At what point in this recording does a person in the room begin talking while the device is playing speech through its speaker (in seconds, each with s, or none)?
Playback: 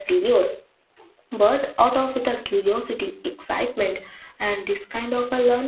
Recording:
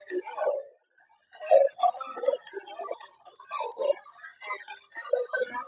none